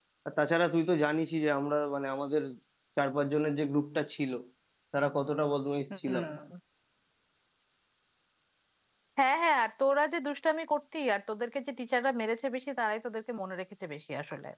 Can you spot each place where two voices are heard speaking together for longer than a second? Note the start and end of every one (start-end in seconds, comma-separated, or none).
none